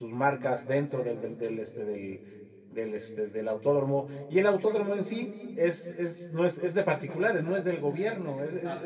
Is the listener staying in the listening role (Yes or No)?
Yes